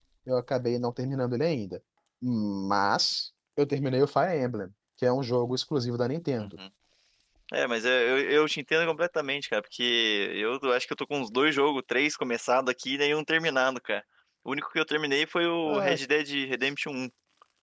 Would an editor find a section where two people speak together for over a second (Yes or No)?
No